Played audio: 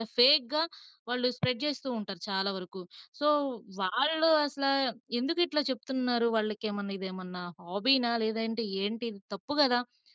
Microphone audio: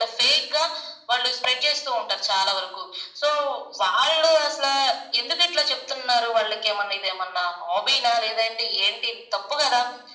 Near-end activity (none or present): none